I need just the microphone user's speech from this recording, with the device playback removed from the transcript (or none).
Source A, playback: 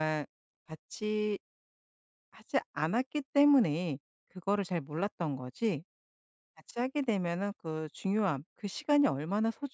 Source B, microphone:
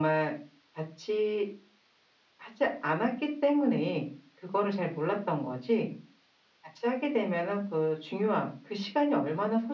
none